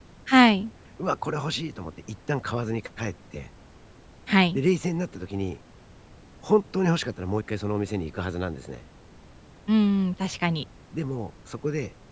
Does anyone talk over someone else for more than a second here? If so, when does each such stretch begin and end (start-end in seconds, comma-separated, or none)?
none